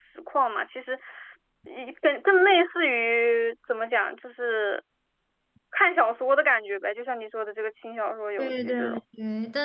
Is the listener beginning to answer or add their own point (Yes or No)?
Yes